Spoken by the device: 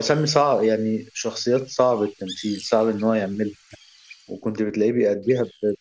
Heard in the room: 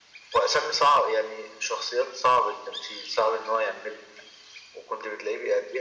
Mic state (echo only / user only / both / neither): echo only